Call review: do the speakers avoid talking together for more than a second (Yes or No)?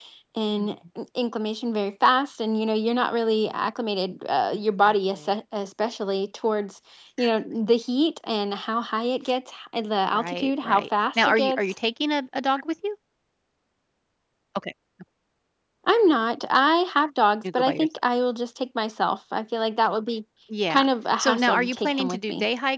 No